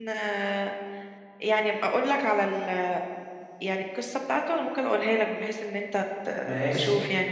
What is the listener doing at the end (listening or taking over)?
taking over